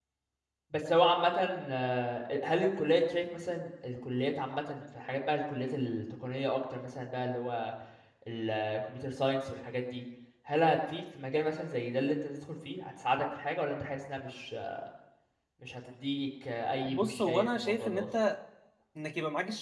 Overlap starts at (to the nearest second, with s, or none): 17 s